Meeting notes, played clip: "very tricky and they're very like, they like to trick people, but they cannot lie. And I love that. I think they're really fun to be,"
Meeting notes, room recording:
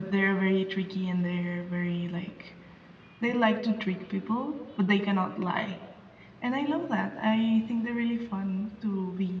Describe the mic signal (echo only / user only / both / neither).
echo only